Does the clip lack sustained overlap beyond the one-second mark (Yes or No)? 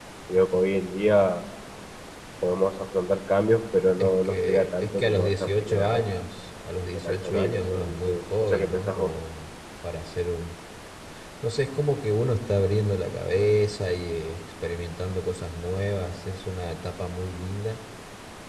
No